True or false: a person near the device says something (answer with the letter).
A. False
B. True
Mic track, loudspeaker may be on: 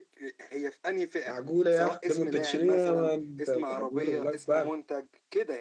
B